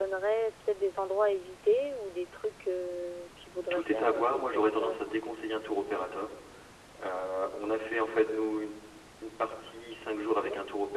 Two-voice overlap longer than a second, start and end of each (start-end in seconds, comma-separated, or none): 3.7-5.0